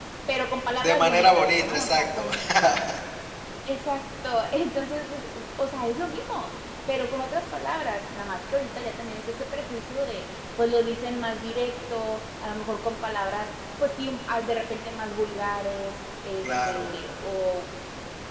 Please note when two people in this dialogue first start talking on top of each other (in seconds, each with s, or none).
0.8 s